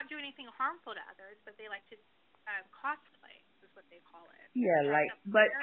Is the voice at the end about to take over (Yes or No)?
Yes